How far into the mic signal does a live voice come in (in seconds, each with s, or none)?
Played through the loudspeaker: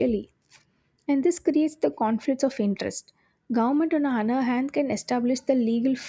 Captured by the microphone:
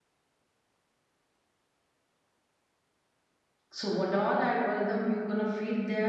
3.7 s